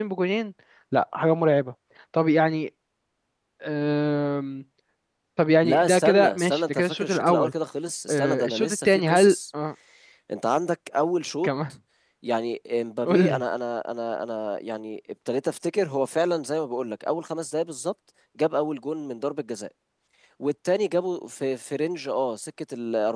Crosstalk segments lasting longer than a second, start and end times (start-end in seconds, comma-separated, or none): 5.6-7.5, 8.1-9.3